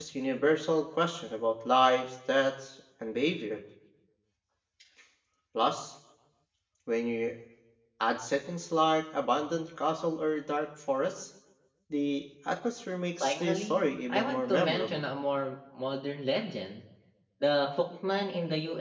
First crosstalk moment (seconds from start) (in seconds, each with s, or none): 13.2 s